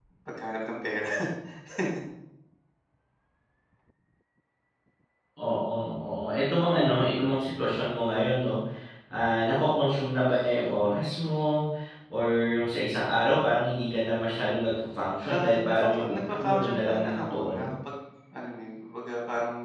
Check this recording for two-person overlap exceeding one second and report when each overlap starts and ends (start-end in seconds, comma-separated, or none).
15.2-17.7